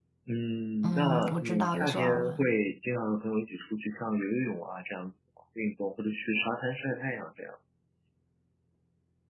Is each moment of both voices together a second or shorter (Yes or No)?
No